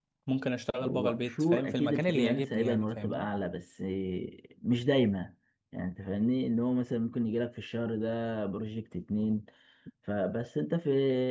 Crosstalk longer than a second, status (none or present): present